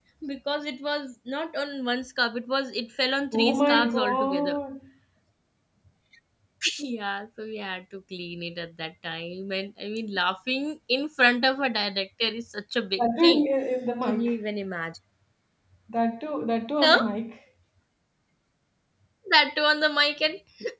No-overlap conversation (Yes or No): No